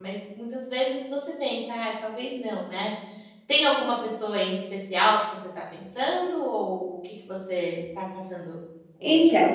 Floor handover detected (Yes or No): Yes